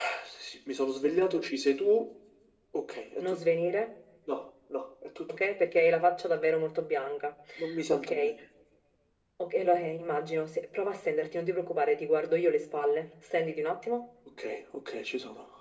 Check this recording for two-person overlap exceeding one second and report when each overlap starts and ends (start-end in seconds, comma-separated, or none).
none